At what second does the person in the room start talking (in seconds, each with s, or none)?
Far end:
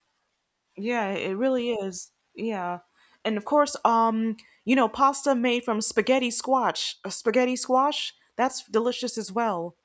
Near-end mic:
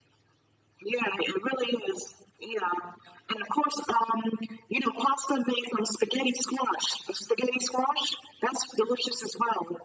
none